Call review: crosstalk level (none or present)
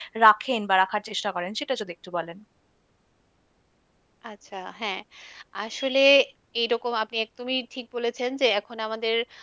none